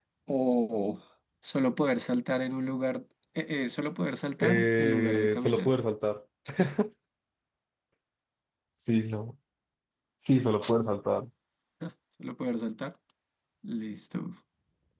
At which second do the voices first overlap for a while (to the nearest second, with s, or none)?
4 s